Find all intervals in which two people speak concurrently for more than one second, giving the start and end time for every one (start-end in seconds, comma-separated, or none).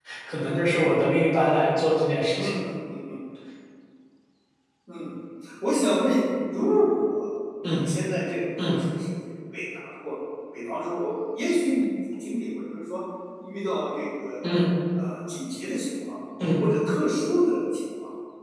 none